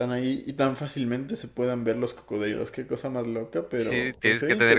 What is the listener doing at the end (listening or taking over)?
taking over